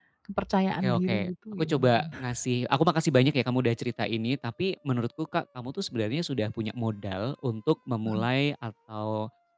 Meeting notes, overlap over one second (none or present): present